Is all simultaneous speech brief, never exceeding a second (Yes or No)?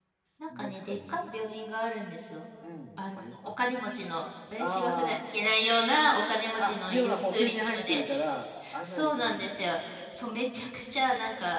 No